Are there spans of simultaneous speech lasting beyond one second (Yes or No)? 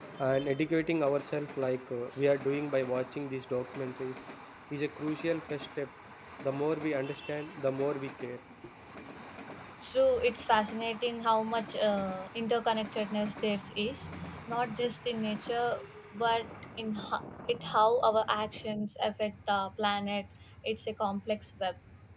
No